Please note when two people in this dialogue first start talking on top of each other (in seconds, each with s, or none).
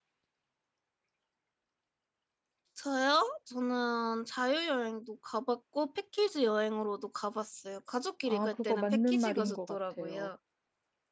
8.2 s